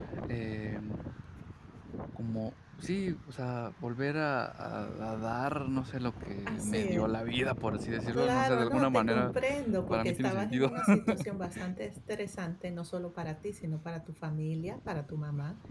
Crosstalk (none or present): present